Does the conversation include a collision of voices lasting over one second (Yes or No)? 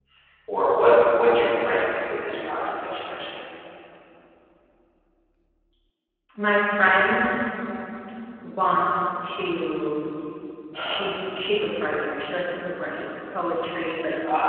No